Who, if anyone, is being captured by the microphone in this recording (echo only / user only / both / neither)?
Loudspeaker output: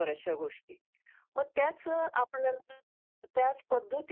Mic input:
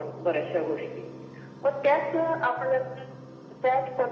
echo only